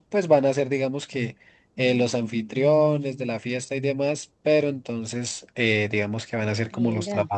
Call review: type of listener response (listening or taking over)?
listening